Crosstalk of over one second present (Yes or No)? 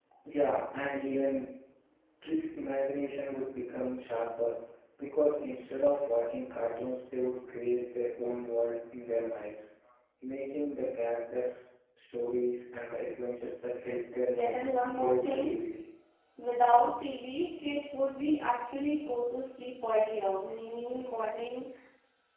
Yes